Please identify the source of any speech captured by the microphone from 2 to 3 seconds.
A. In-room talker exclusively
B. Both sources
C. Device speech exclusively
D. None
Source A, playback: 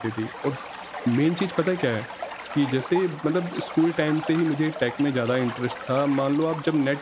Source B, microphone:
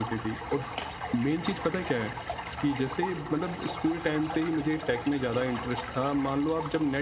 C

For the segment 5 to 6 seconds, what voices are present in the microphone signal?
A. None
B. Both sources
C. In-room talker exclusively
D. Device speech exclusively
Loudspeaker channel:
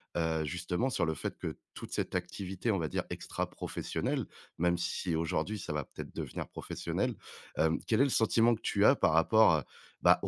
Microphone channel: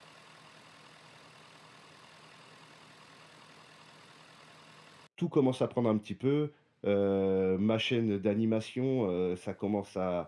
C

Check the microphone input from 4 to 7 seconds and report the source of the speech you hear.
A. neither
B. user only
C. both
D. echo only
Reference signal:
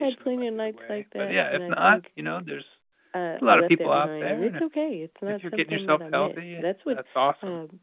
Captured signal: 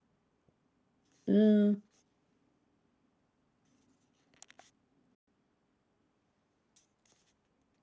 A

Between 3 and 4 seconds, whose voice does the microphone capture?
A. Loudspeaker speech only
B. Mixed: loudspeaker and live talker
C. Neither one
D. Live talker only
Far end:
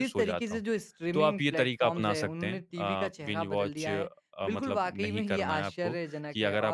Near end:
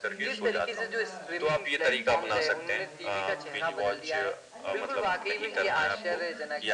B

